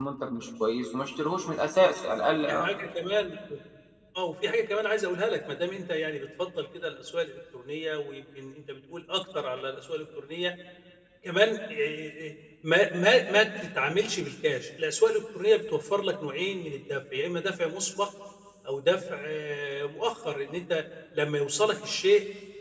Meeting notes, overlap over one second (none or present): none